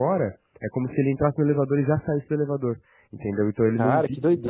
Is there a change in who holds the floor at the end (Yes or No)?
Yes